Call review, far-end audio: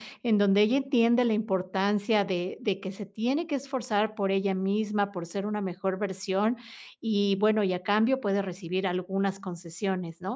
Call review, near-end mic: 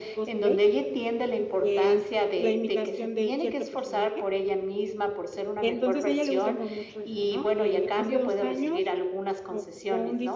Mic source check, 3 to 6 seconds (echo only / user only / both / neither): both